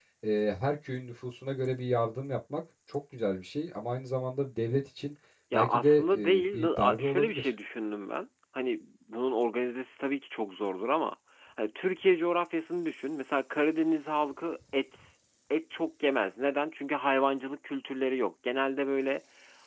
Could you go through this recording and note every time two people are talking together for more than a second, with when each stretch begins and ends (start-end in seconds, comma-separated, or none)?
5.5-7.5